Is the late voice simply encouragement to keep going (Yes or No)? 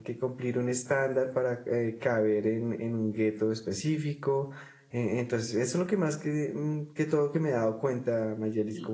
No